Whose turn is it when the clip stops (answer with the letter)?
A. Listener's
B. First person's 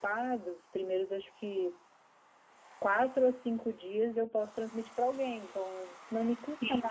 B